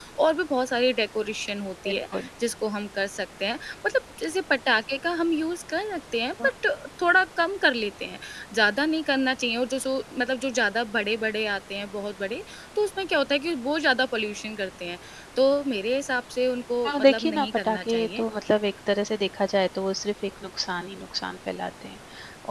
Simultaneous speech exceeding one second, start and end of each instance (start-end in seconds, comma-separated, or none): 16.9-18.2